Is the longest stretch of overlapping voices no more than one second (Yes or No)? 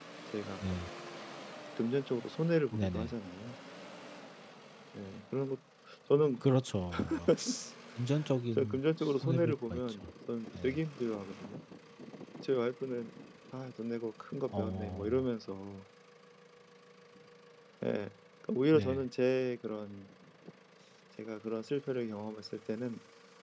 No